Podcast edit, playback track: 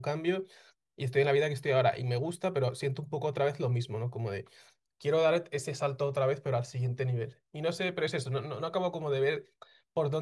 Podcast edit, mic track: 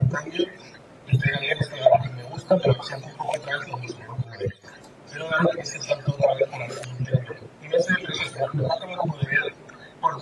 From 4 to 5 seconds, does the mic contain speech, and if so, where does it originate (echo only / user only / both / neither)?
echo only